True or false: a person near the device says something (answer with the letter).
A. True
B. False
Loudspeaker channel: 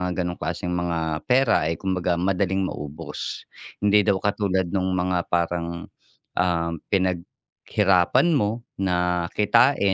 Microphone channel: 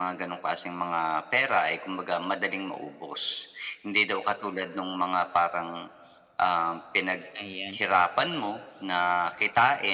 A